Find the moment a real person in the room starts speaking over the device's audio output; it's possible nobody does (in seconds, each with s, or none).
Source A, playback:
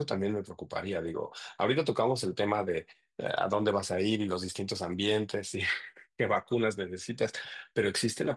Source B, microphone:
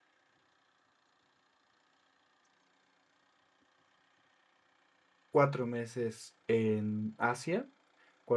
5.3 s